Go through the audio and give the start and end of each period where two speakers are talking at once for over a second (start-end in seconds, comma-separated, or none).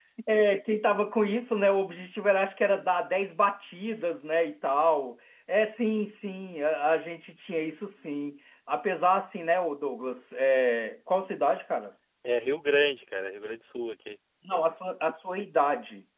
none